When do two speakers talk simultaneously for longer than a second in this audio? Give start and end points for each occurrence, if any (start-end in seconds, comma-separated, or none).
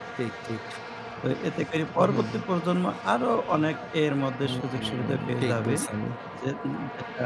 4.4-5.7